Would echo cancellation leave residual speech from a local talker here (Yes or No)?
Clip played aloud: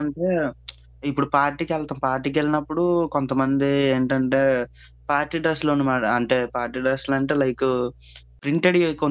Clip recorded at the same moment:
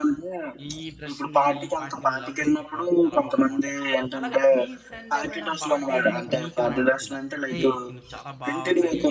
Yes